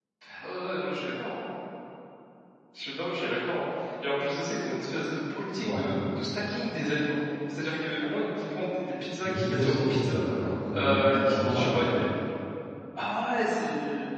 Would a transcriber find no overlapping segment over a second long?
No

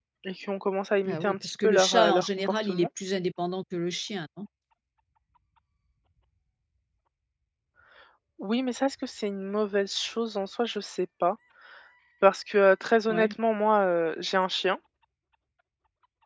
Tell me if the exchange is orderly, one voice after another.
No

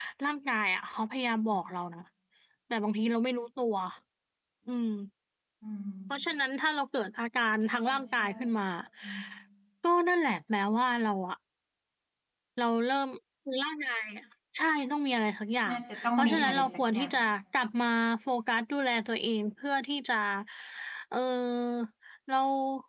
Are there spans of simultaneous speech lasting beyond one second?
Yes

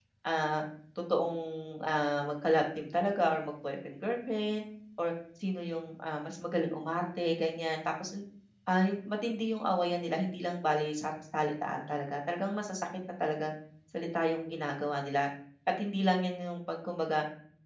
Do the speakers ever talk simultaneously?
No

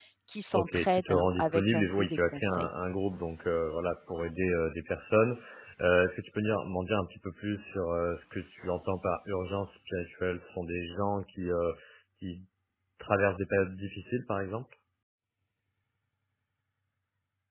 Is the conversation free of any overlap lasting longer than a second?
No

